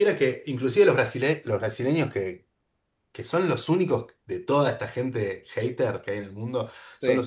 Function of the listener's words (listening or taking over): listening